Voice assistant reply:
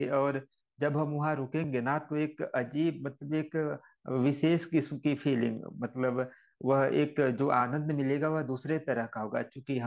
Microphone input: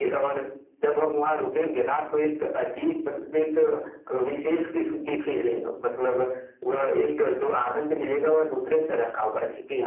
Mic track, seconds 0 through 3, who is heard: echo only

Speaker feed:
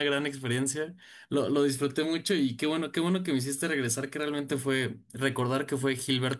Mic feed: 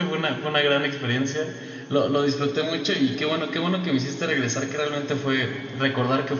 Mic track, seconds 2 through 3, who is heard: echo only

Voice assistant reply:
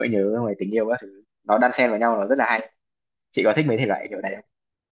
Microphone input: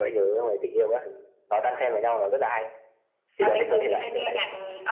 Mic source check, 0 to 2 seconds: echo only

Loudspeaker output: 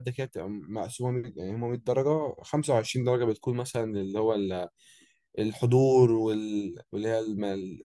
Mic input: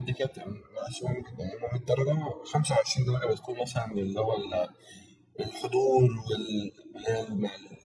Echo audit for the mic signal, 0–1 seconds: echo only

